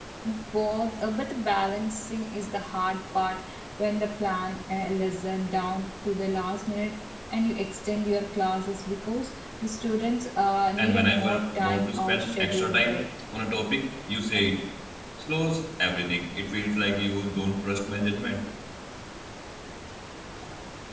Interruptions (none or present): present